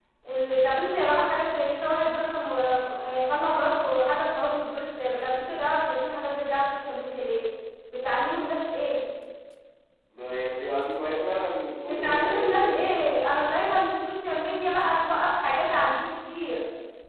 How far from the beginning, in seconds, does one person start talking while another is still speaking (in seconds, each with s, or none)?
11.9 s